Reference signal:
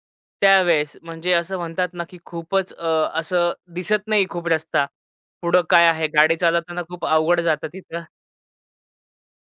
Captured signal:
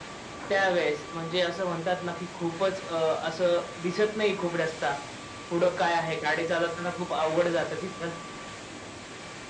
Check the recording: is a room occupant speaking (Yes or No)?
No